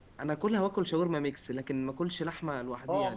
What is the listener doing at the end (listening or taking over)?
taking over